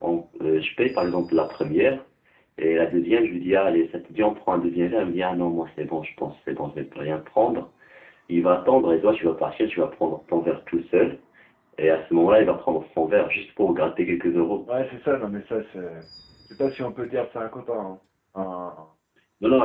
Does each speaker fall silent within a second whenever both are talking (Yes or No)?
Yes